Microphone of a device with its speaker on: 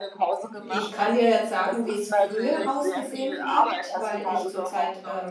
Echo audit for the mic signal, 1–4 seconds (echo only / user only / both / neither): both